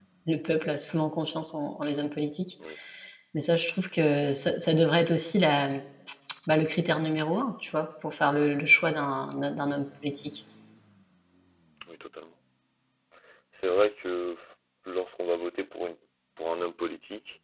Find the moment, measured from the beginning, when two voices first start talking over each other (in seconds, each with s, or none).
none